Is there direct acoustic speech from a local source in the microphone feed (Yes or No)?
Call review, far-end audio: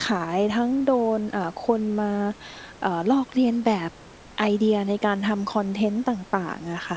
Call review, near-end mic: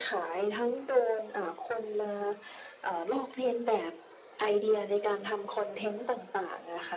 No